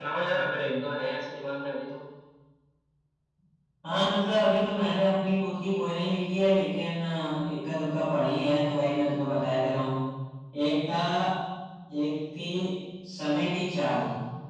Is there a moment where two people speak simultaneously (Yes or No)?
No